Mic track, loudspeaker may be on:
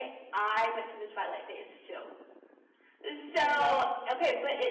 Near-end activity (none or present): present